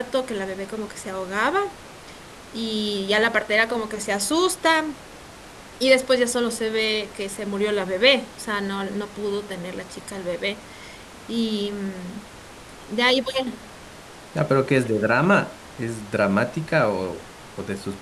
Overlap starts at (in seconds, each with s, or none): none